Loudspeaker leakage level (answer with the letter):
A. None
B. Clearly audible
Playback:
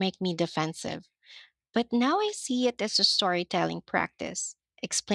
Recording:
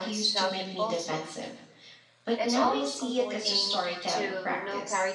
B